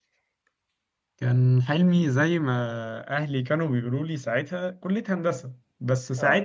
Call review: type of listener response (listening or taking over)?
listening